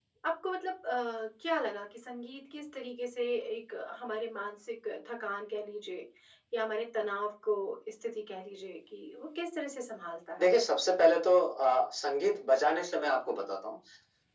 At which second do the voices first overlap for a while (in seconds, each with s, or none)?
none